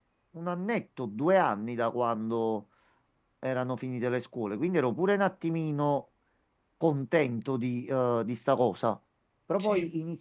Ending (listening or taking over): listening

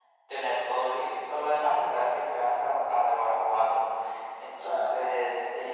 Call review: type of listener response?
listening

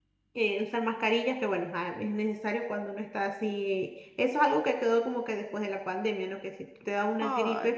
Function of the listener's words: listening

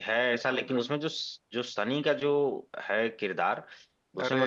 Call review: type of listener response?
listening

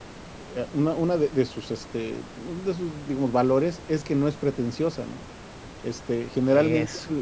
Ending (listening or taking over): listening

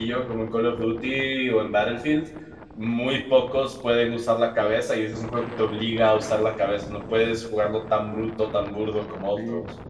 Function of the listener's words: taking over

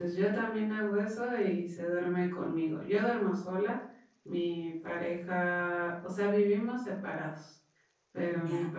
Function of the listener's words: listening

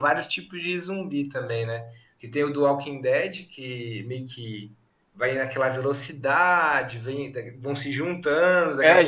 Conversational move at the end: taking over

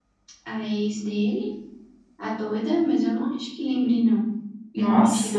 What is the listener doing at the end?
taking over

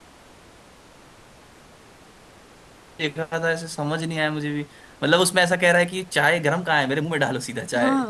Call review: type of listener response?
taking over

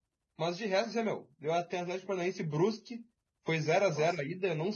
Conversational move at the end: listening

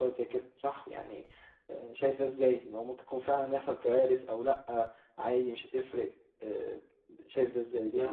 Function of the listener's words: taking over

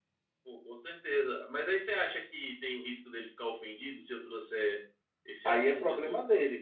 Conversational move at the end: taking over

